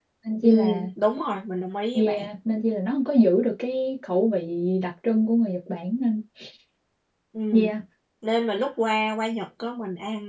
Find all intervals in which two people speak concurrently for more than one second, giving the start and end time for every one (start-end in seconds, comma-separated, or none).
none